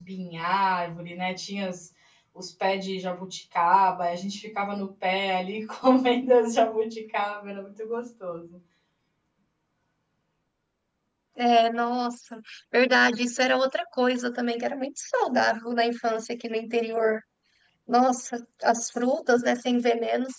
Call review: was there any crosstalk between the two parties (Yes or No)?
No